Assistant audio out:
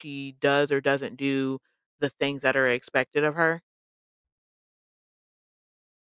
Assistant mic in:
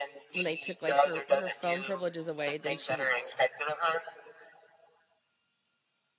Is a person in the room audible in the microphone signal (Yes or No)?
Yes